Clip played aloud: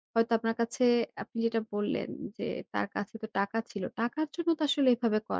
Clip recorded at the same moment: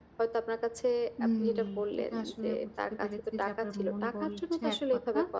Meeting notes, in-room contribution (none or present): present